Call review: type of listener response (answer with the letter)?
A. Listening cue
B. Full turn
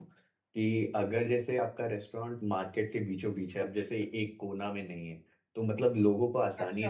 B